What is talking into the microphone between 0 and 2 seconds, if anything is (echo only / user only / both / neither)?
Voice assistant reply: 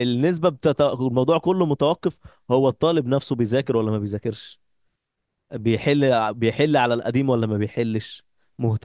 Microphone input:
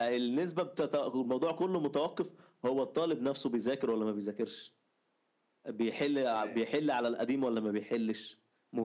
echo only